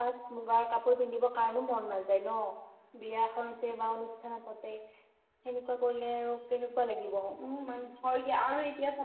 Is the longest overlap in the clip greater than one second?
No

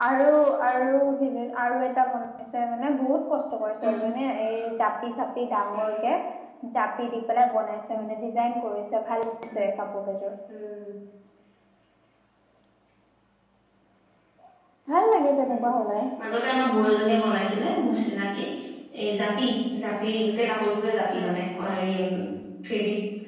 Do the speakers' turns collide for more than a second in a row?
No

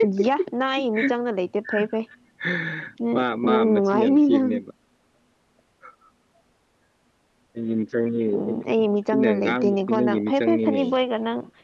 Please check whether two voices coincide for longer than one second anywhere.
Yes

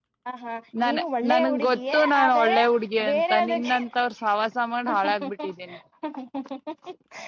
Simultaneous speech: Yes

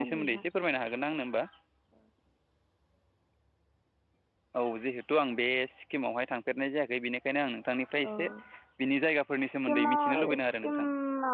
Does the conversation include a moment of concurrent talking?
Yes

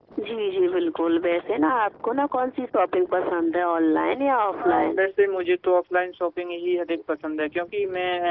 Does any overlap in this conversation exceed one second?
No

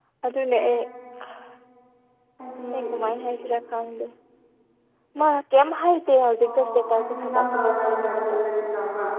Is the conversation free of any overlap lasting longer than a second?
No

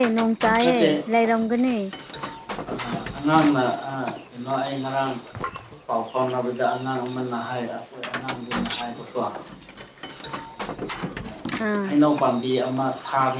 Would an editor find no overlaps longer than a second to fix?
Yes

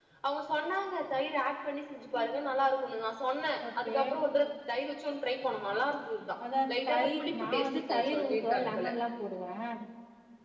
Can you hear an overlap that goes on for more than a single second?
Yes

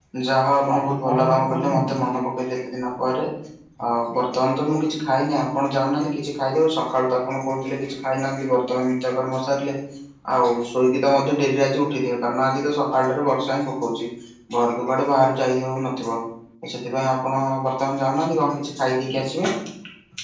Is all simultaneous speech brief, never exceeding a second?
No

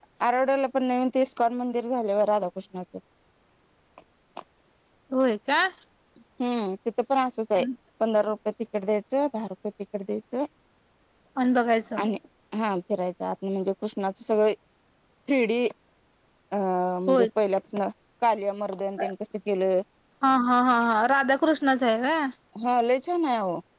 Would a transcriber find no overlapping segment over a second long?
Yes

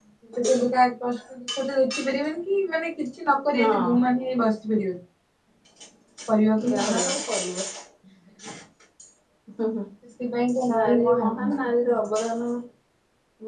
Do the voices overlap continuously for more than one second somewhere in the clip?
Yes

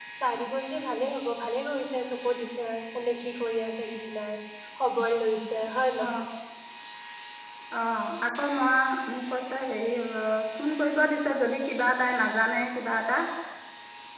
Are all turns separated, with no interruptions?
Yes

